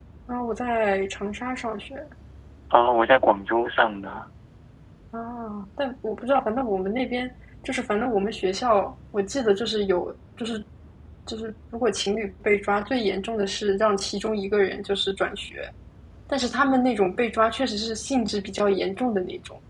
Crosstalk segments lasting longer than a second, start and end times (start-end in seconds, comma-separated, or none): none